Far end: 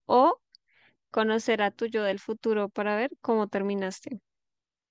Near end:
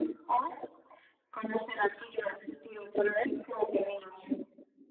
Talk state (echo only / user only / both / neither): echo only